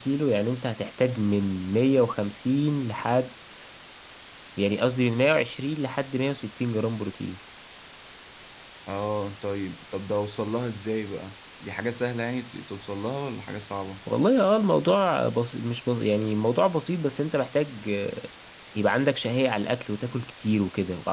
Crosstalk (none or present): none